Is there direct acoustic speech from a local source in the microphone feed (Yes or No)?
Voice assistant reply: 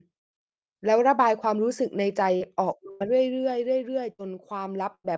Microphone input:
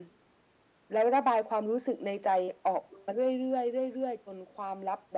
No